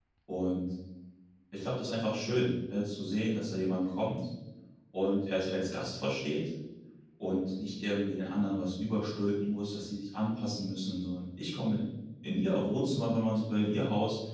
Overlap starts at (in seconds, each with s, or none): none